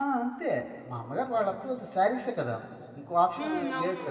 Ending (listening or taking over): listening